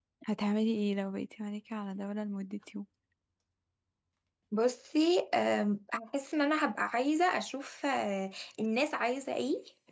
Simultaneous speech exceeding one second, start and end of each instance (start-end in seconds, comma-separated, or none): none